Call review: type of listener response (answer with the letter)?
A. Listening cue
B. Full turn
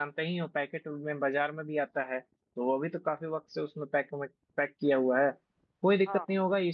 A